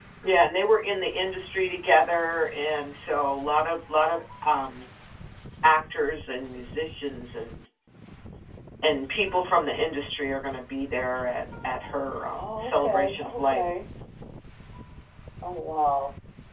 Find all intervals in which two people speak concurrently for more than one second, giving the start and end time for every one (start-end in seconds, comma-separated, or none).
12.3-13.6